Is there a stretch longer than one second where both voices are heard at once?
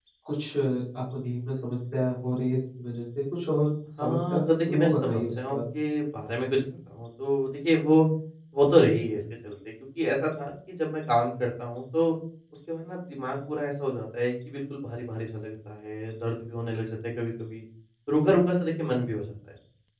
Yes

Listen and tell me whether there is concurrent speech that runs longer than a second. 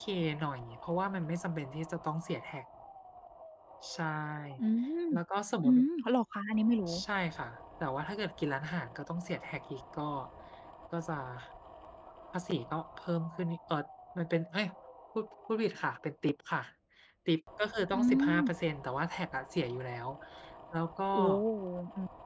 No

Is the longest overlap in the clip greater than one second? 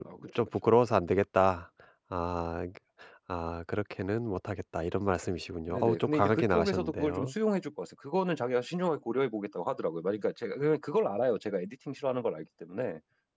Yes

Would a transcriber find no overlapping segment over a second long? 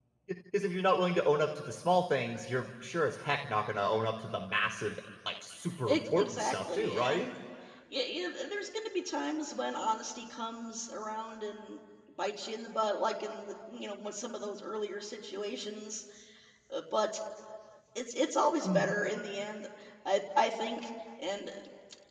No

